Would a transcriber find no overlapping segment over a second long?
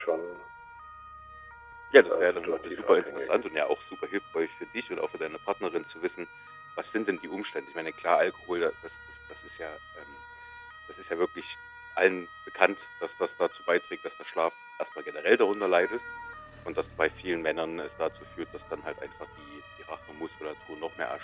No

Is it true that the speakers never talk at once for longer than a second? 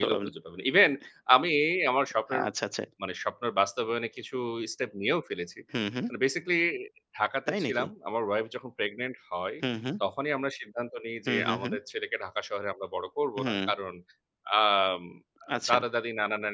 Yes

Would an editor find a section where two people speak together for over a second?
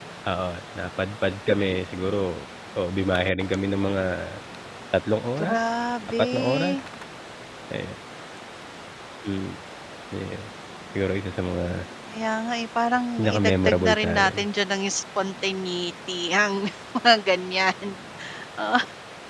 Yes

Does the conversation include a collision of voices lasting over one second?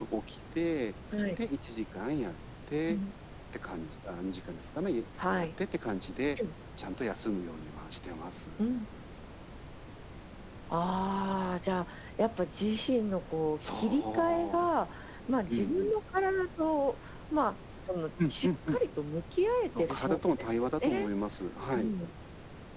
Yes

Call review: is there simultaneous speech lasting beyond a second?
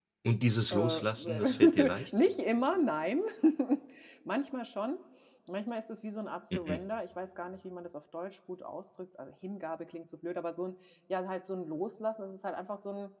Yes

